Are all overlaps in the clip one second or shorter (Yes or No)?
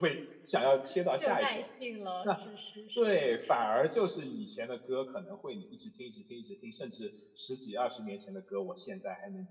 Yes